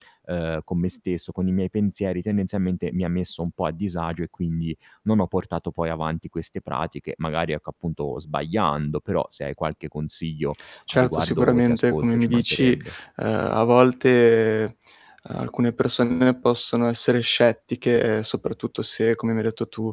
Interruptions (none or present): present